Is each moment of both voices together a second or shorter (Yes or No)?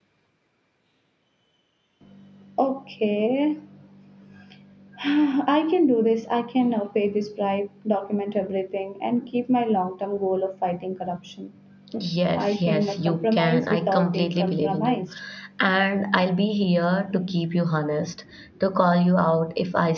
No